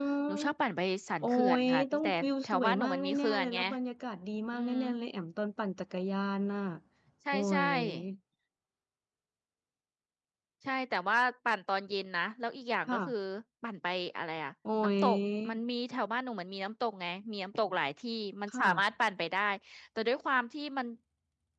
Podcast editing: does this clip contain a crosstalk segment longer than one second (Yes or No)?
Yes